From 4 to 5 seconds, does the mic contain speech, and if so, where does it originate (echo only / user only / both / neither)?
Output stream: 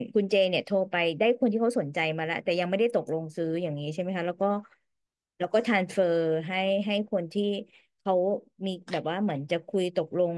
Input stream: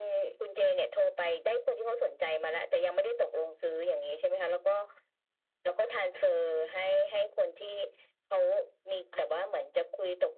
echo only